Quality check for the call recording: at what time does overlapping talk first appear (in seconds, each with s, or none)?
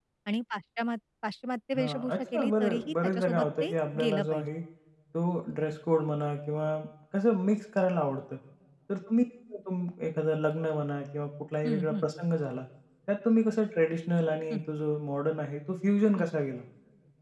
1.7 s